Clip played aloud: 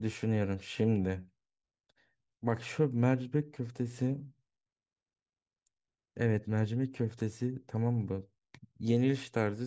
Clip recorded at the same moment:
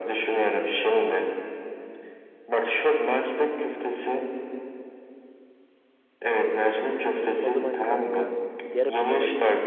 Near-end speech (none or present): present